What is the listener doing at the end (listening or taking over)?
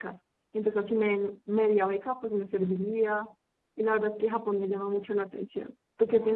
taking over